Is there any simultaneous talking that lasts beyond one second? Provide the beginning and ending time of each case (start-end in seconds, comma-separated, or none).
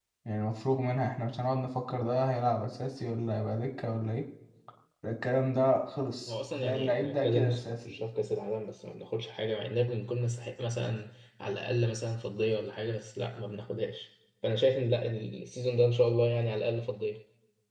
6.3-7.9